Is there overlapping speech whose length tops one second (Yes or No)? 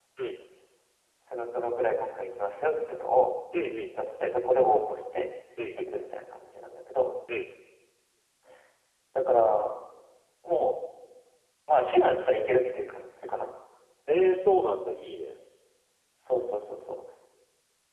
No